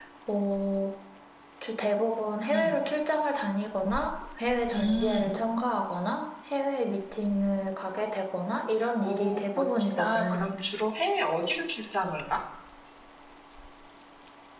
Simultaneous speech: Yes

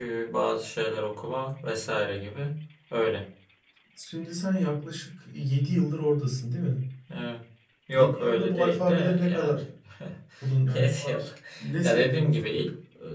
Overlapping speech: Yes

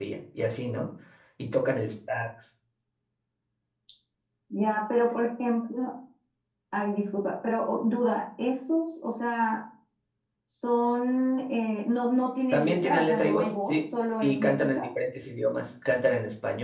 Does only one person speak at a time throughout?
No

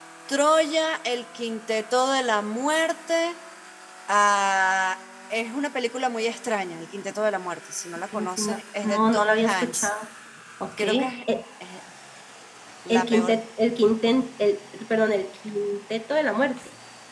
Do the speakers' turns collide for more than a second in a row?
Yes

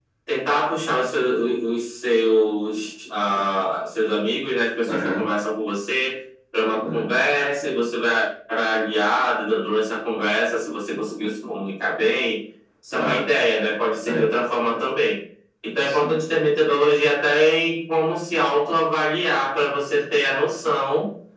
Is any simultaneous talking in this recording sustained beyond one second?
No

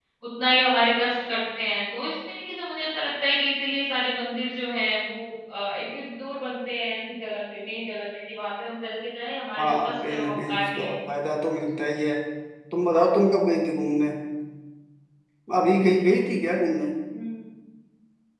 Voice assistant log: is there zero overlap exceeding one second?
No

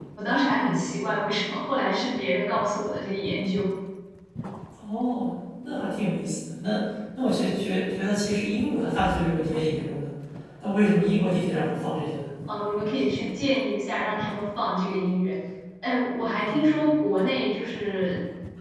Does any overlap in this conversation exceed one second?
No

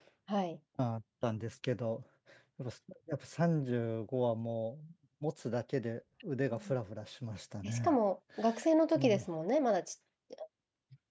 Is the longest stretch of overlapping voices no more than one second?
Yes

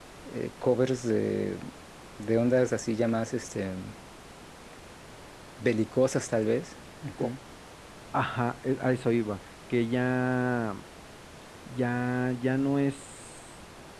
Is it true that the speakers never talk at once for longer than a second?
Yes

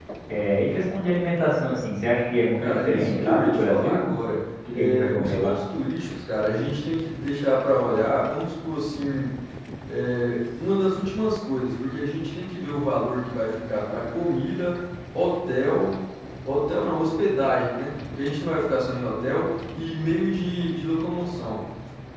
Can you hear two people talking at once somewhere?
Yes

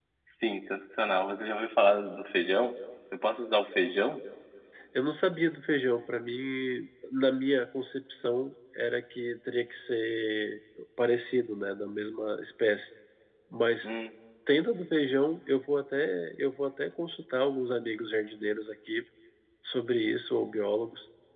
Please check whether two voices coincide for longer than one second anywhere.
No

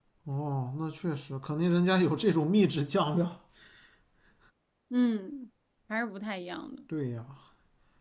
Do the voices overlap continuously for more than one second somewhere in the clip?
No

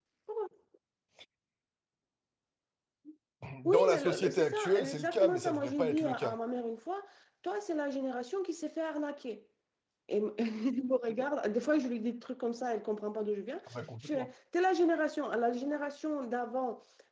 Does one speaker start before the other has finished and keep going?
Yes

